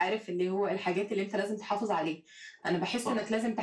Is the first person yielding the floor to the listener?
No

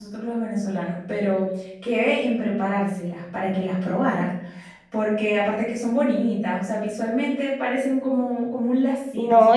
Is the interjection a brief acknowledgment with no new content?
No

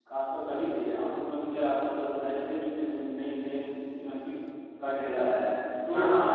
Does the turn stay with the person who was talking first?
Yes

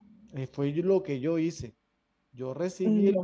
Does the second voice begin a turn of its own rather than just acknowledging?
No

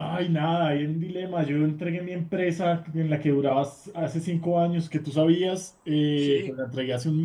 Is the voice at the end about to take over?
No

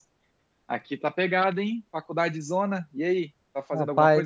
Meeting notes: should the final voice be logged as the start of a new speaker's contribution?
Yes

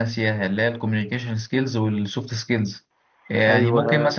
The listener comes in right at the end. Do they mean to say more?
No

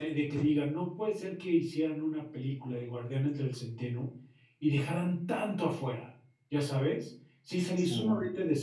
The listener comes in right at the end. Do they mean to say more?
No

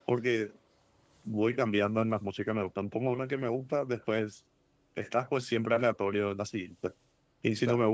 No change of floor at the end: Yes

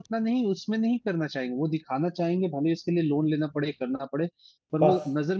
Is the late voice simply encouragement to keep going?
Yes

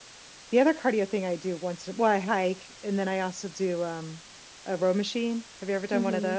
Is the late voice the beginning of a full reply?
Yes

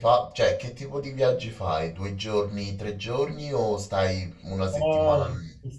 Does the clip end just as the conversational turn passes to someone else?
Yes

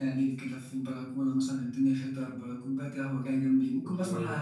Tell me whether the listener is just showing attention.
Yes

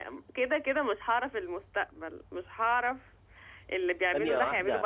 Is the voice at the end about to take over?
No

